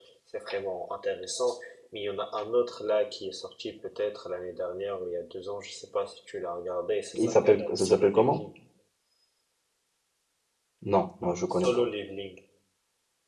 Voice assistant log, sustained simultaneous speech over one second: present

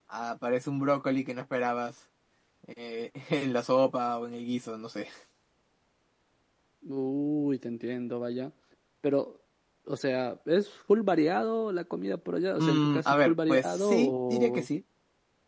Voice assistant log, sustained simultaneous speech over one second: present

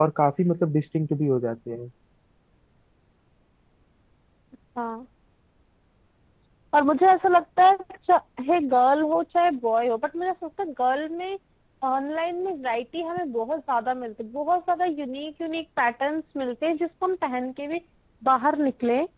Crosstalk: none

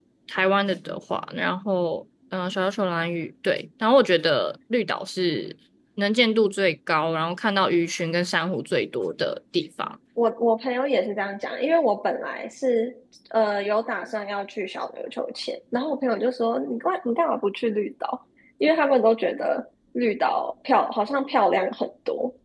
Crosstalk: none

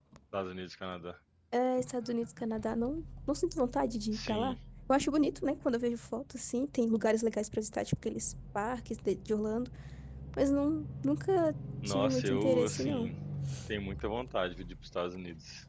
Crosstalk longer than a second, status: present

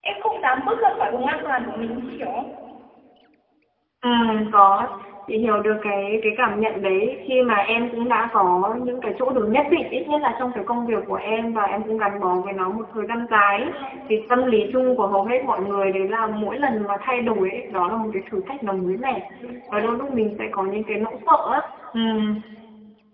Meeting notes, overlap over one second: none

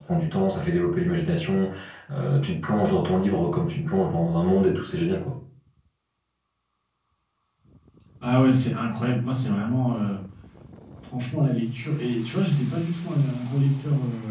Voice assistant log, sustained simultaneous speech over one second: none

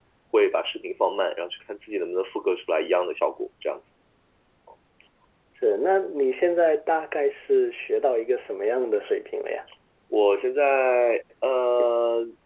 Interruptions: none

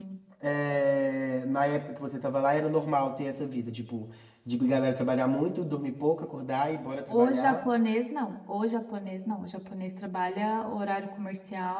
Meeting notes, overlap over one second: none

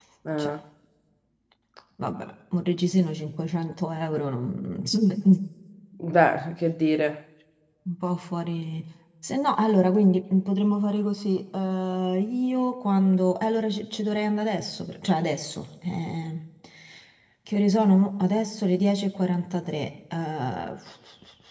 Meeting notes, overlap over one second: none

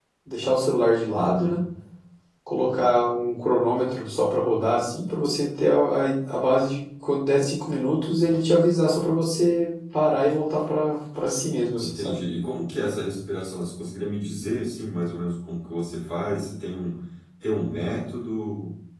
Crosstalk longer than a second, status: none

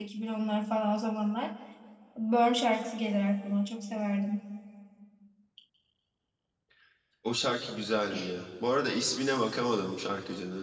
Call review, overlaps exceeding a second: none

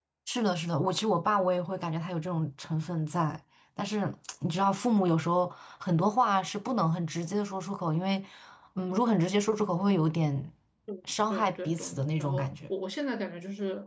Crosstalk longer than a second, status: present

